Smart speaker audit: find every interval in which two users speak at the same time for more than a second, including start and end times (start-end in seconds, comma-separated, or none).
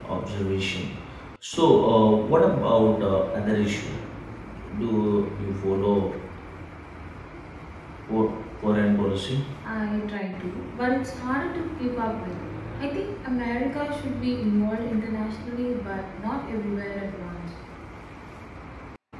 none